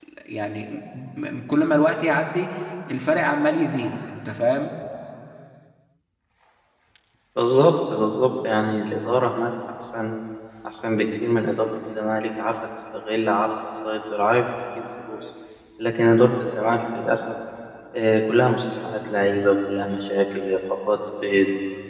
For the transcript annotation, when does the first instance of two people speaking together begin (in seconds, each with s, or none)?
none